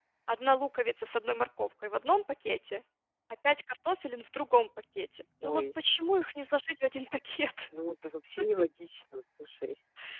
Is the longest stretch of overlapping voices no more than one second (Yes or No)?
Yes